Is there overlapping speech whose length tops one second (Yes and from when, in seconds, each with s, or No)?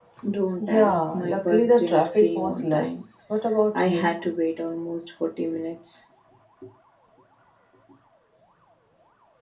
Yes, from 0.7 s